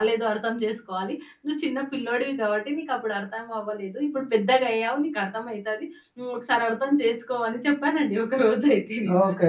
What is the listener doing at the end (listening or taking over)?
taking over